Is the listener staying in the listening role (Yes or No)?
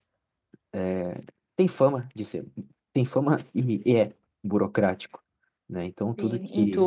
No